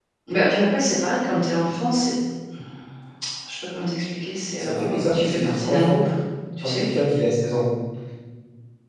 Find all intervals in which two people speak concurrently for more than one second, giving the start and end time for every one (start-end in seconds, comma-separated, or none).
4.6-6.0